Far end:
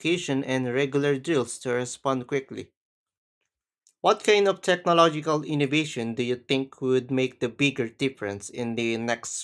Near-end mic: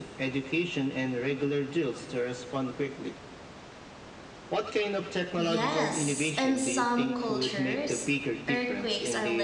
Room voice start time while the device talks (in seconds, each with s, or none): 5.4 s